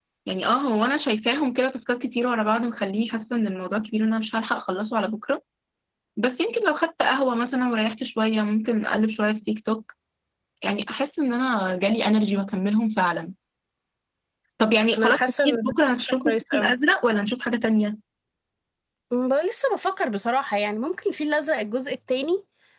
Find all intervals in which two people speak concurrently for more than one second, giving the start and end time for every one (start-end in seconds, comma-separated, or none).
15.0-16.7